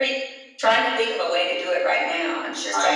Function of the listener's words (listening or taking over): taking over